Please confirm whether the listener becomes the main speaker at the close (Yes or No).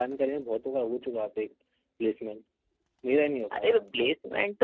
Yes